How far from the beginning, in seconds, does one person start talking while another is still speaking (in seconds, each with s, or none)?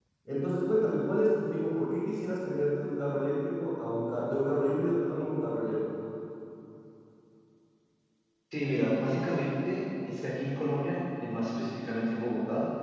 none